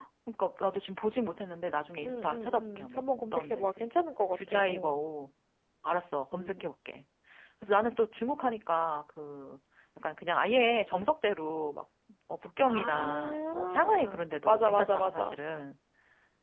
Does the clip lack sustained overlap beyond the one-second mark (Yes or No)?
No